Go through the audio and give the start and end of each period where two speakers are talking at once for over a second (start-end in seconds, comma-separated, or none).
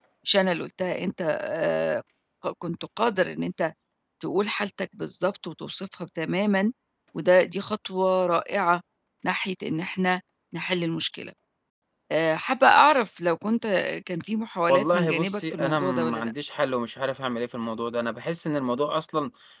14.7-16.3